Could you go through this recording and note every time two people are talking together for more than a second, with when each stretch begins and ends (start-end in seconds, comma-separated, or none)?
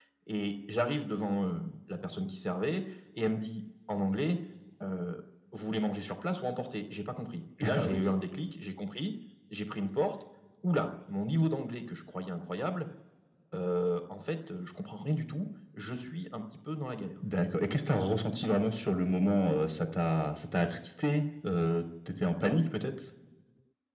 none